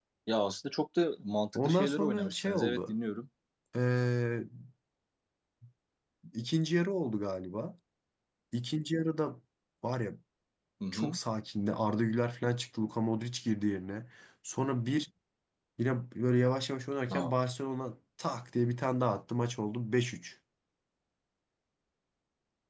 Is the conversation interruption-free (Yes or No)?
No